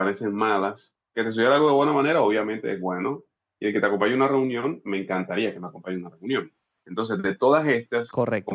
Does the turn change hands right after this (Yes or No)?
Yes